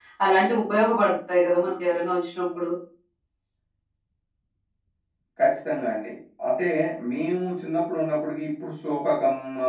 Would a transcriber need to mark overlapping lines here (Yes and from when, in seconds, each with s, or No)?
No